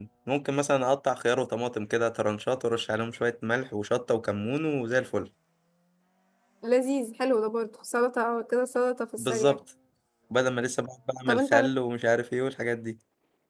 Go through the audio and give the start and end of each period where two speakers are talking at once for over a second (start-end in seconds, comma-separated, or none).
none